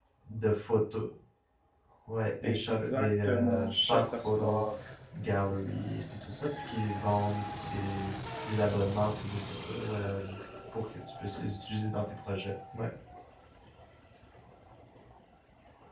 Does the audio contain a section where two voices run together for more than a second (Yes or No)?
Yes